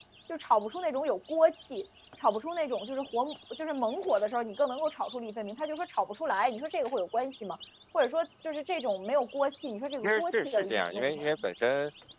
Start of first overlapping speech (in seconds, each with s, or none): 10.0 s